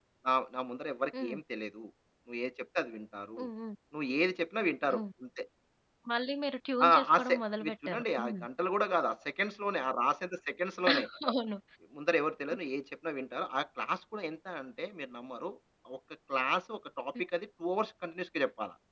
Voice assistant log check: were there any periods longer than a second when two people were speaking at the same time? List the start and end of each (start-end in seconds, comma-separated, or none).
6.8-8.4